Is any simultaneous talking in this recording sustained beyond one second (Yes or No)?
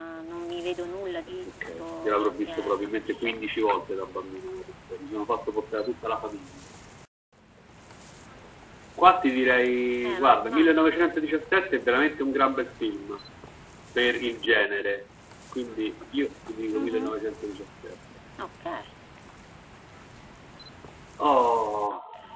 Yes